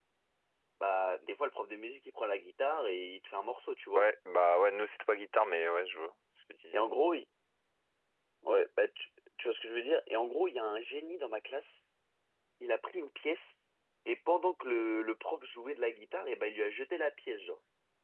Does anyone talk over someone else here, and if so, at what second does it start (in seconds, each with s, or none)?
none